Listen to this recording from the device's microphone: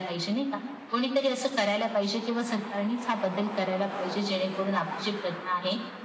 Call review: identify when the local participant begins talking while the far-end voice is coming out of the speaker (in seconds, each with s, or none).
none